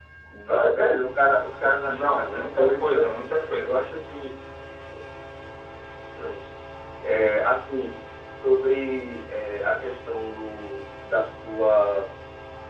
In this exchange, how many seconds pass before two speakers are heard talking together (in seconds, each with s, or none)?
1.8 s